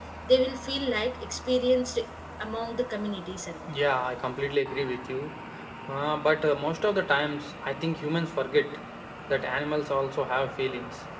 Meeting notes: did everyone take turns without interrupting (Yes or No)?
Yes